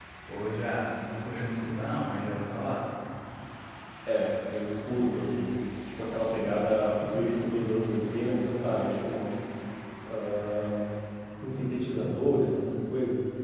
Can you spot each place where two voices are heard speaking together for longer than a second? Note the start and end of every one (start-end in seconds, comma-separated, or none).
none